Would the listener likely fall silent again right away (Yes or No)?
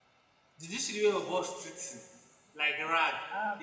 No